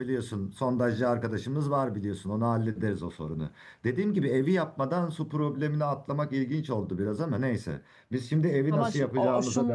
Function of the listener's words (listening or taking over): taking over